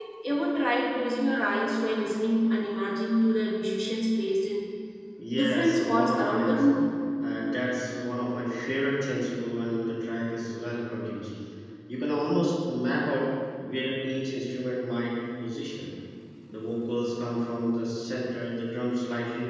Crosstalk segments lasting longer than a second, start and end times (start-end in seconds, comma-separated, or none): 5.3-6.6